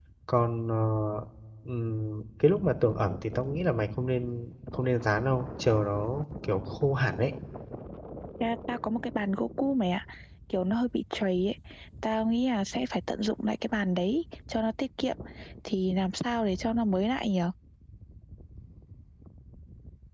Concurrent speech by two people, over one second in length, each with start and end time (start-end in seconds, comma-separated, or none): none